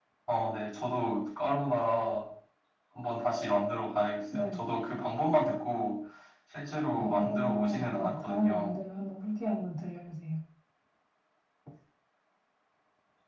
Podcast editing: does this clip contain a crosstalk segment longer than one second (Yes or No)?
Yes